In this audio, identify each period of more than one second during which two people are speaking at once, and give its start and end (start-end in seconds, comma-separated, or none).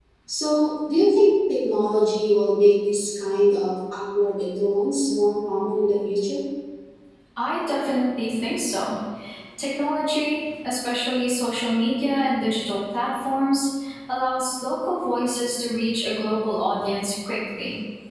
none